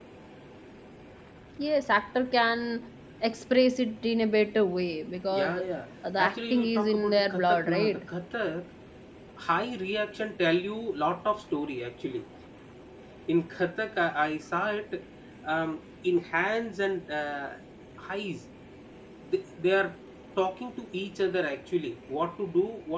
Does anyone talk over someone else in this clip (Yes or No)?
Yes